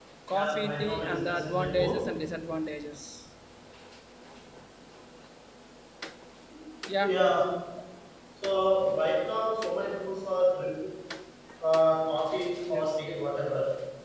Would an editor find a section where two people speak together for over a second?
Yes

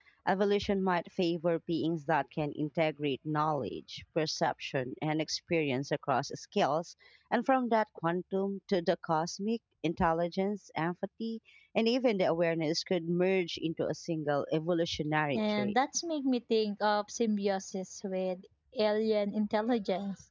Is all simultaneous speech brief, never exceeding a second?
Yes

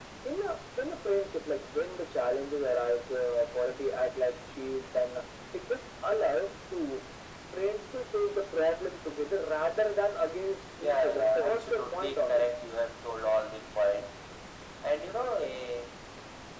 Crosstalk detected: Yes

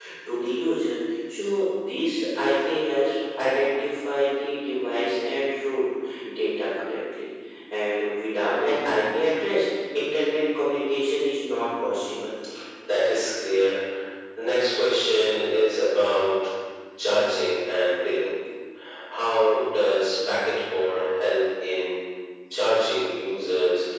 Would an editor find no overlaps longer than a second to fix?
Yes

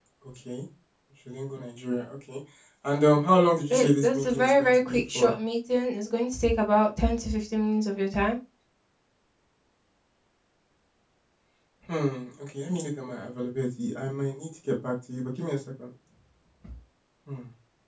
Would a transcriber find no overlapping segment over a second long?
No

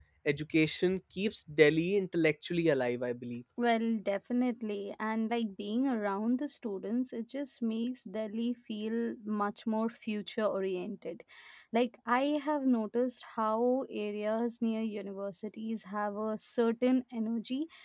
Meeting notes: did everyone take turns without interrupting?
Yes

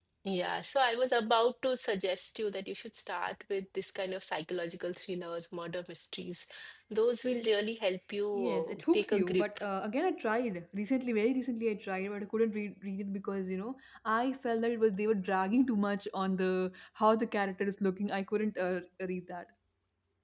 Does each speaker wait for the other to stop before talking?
No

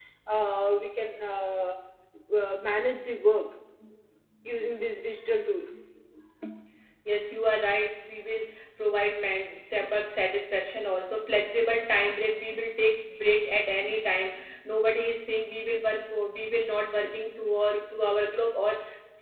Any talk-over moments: No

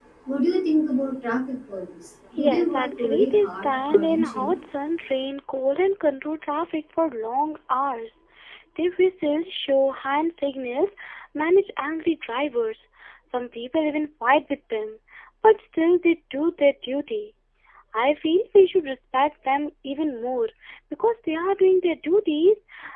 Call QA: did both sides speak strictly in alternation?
No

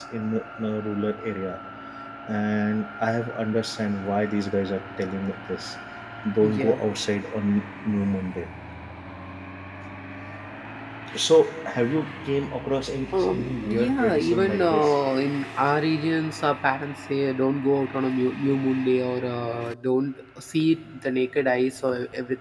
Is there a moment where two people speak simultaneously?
Yes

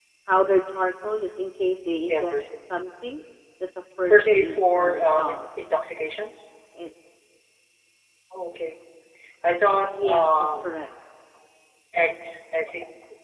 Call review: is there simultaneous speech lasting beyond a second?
Yes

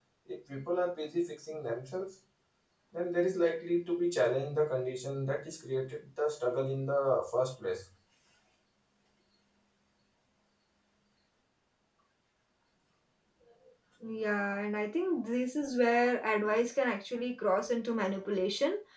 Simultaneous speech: No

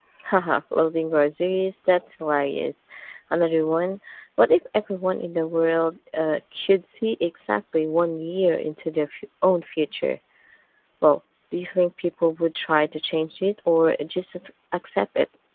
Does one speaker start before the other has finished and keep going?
No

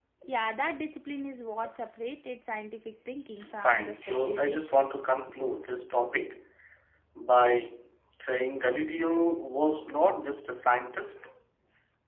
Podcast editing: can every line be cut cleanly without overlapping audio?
No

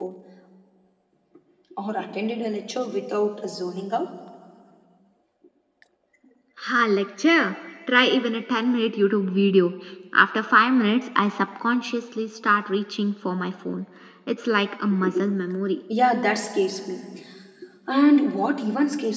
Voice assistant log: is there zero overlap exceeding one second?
Yes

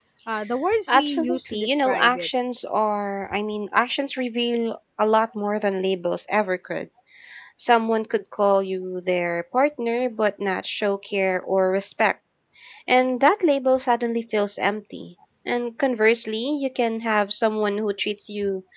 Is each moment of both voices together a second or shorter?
No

